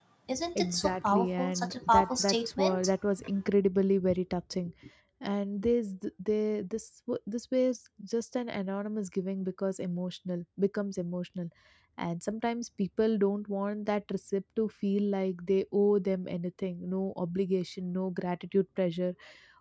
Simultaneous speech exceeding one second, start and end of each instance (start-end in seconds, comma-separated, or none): 0.6-2.9